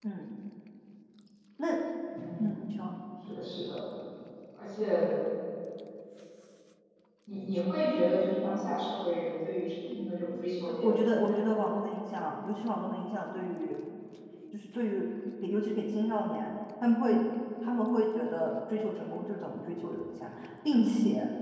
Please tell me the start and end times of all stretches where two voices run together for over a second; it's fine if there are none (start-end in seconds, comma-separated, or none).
10.0-11.4